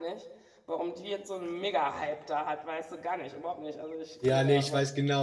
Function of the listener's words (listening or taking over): taking over